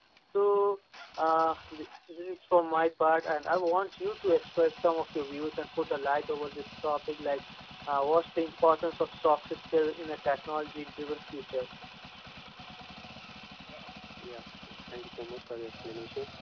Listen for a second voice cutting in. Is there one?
No

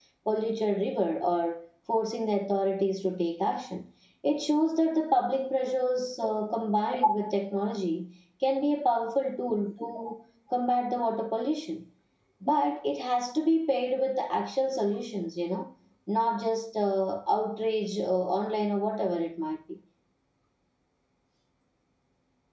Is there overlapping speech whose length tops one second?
No

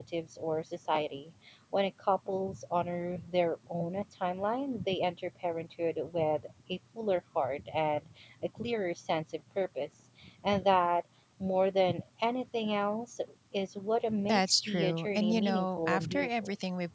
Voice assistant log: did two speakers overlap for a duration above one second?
Yes, from 14.3 s

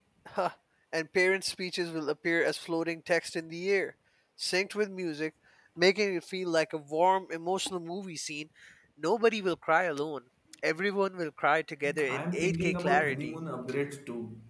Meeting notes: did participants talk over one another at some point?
Yes, from 11.8 s

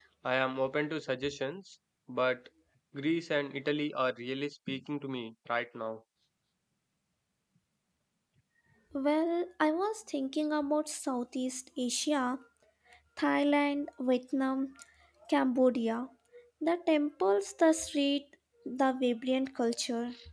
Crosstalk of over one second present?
No

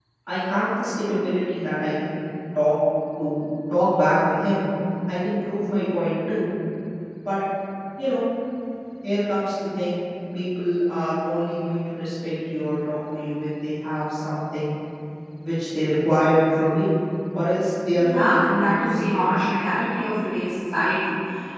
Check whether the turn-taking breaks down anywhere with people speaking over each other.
Yes, from 17.9 s

